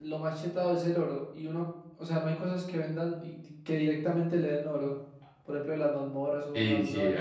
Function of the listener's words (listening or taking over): taking over